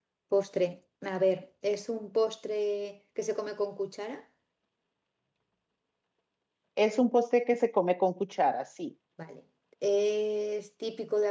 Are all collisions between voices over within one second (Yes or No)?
Yes